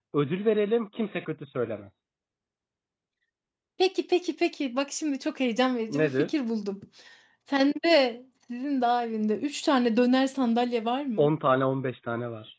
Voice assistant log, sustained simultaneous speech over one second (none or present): none